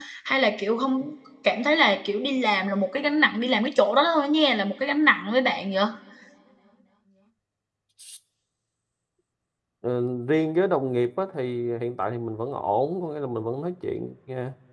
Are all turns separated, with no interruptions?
Yes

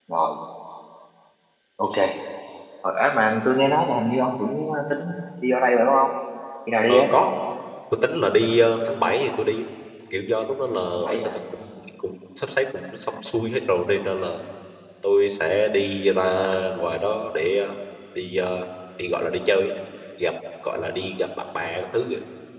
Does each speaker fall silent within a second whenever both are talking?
Yes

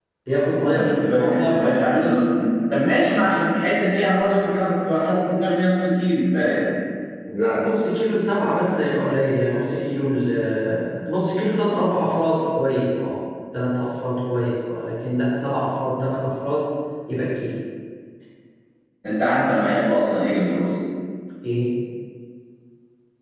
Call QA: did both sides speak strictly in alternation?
No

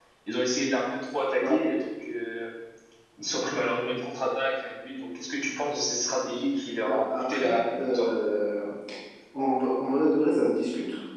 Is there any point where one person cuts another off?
Yes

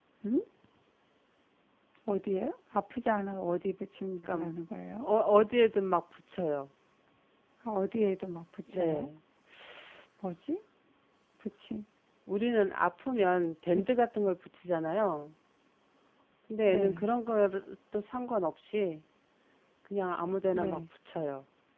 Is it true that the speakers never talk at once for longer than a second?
Yes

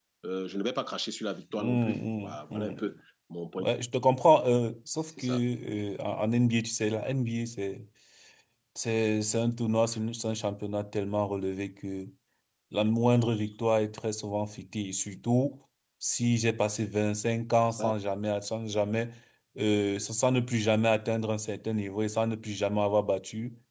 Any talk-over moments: Yes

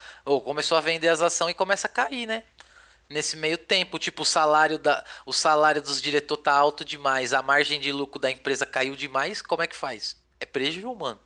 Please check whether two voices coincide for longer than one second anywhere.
No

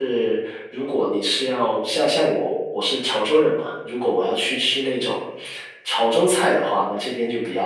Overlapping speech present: No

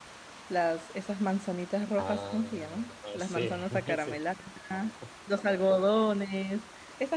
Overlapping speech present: Yes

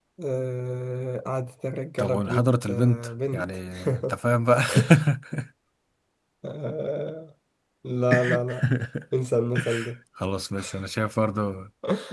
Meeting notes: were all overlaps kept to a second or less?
No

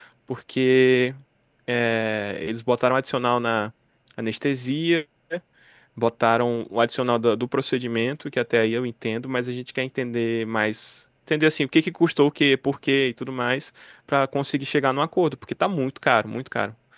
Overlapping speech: No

